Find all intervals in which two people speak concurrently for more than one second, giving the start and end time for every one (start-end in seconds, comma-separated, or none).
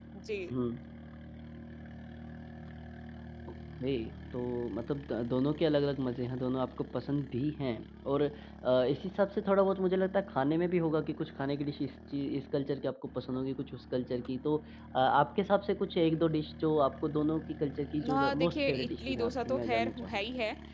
18.1-20.2